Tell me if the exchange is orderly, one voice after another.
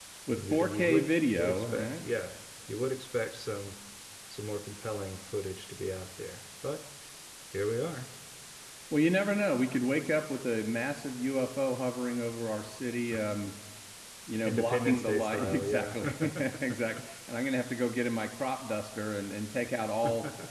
No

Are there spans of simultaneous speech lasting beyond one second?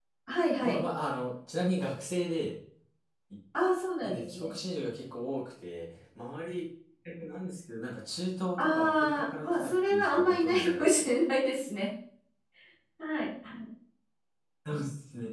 Yes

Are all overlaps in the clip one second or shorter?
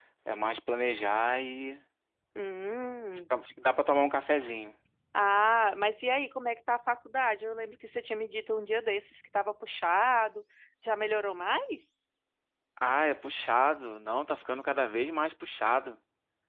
Yes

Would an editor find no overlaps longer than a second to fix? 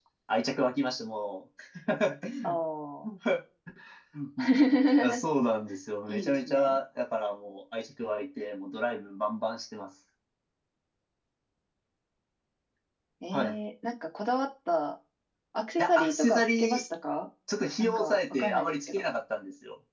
No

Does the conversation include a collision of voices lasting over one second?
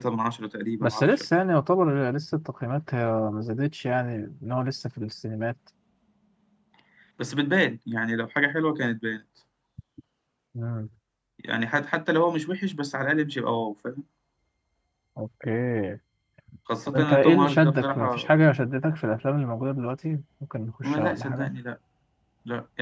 Yes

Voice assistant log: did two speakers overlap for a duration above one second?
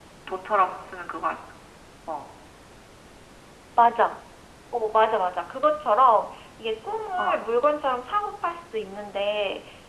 No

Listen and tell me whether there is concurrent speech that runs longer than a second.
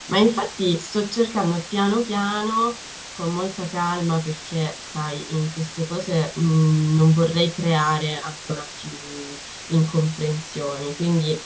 No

